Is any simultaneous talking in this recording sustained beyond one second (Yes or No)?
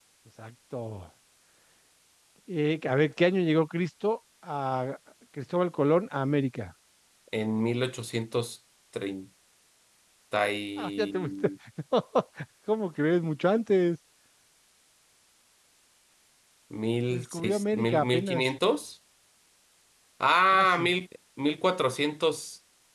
Yes